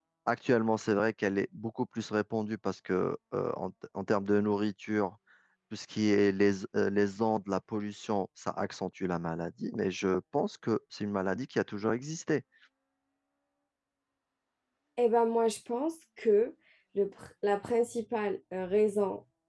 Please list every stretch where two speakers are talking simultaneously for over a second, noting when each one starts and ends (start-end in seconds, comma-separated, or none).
none